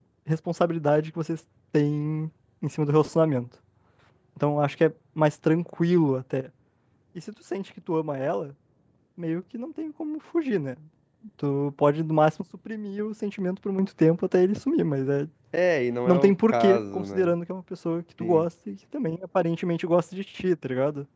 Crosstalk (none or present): present